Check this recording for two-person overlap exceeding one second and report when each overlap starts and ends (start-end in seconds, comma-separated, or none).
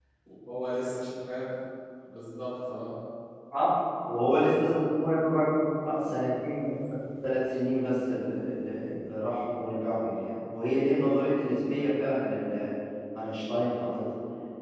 none